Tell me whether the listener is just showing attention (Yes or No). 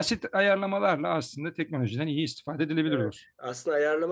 No